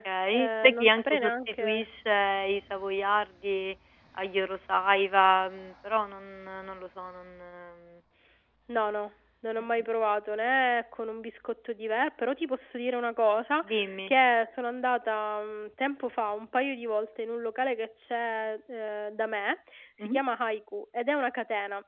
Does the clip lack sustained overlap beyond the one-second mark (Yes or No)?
No